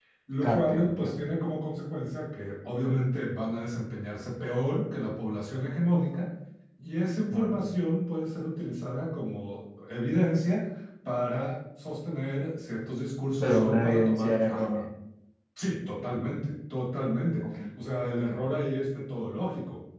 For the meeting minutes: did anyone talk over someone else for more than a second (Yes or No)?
Yes